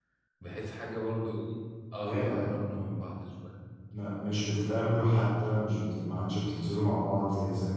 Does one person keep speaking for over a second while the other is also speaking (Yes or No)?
No